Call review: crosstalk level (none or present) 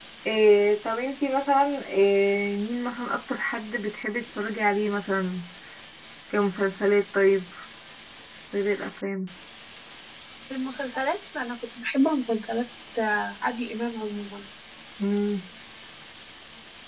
none